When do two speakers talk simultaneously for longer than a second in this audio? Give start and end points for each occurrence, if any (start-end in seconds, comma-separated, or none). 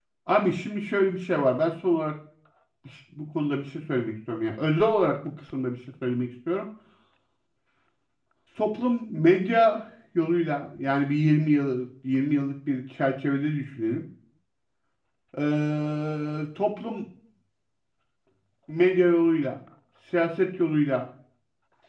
none